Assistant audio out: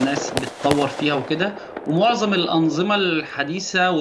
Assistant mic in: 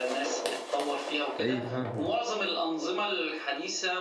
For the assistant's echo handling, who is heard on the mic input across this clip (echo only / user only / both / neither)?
both